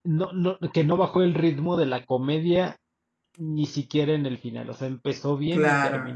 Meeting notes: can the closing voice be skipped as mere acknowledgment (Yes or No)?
Yes